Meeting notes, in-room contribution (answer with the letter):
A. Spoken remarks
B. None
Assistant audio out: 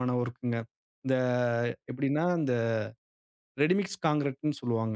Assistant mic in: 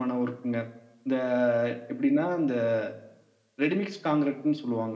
B